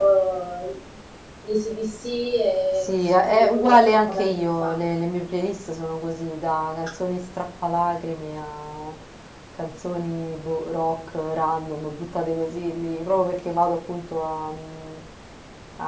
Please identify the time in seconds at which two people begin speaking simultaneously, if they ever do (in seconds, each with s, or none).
2.8 s